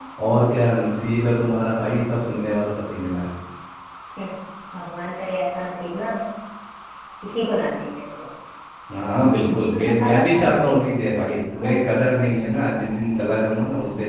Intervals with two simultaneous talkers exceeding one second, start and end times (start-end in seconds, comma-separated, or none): 9.5-10.8